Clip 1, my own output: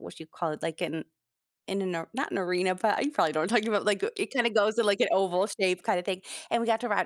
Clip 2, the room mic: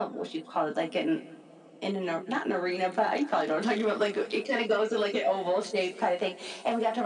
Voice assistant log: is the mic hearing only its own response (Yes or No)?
Yes